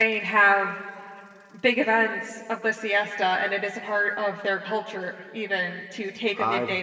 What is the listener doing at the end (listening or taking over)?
taking over